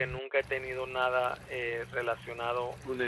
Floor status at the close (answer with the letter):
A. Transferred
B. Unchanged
A